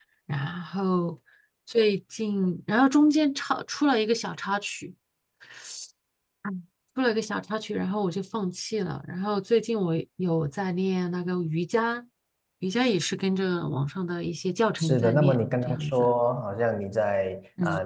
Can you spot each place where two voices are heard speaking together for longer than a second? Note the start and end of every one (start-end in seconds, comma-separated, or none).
14.8-16.1